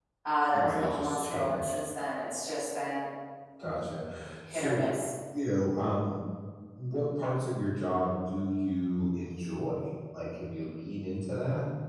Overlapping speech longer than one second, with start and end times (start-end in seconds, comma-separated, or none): 0.5-1.8